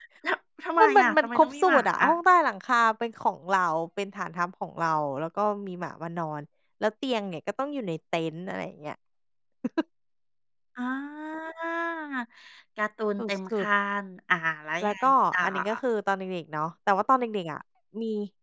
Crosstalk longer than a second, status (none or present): present